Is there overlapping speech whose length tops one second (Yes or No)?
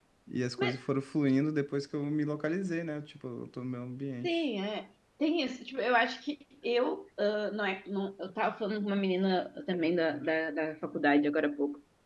No